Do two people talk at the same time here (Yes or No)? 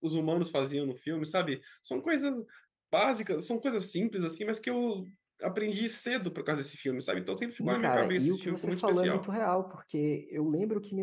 Yes